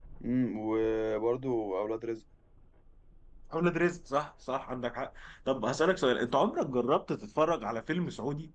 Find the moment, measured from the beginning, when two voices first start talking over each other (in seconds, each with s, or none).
none